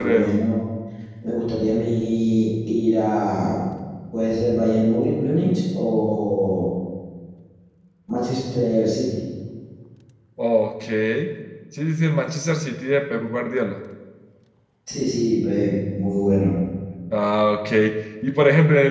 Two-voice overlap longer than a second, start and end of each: none

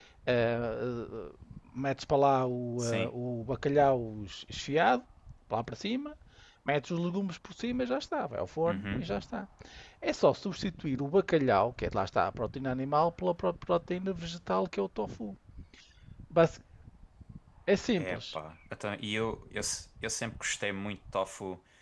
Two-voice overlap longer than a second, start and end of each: none

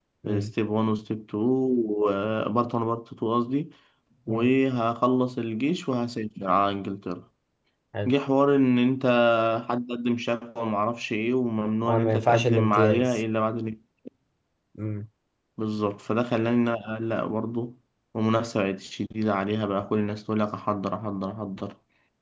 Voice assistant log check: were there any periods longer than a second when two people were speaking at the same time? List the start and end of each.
11.9-13.2

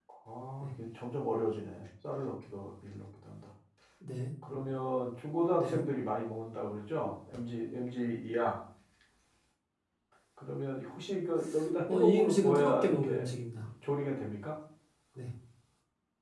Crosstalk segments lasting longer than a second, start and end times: 11.9-13.3

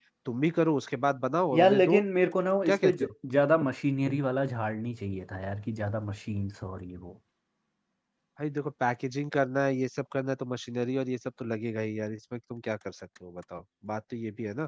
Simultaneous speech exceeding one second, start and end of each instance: none

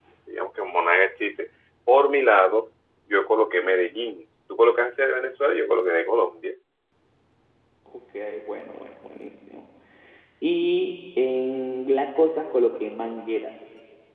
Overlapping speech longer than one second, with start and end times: none

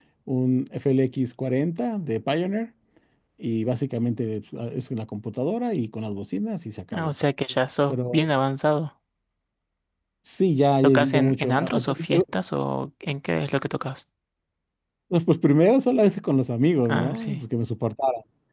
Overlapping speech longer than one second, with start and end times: 10.8-12.2

